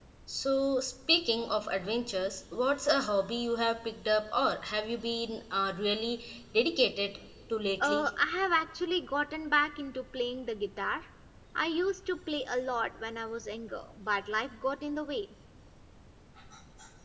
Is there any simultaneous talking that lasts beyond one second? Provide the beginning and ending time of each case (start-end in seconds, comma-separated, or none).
none